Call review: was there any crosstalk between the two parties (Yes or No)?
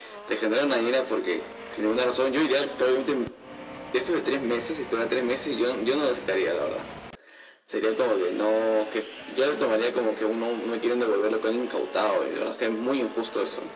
No